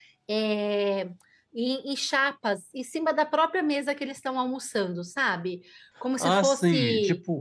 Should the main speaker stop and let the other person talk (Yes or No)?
Yes